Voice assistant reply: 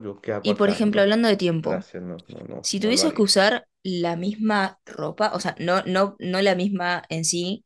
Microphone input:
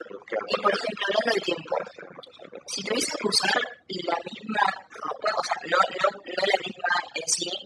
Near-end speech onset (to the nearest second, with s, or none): none